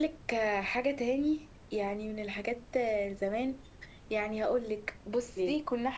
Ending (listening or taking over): listening